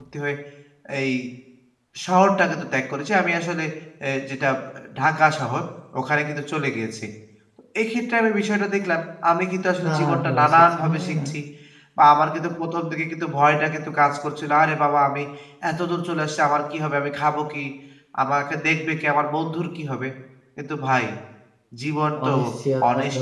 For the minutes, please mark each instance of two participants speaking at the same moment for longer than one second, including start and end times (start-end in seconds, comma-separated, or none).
9.8-11.3